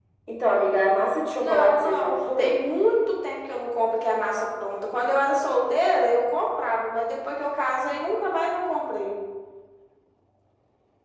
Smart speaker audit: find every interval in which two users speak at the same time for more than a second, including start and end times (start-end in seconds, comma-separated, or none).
1.4-2.6